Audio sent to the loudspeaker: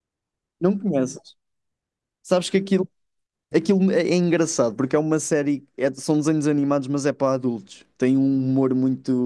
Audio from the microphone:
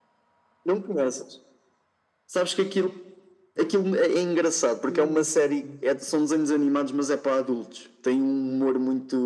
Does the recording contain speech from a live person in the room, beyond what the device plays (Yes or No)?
Yes